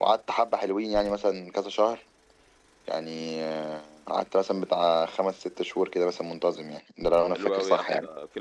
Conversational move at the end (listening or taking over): taking over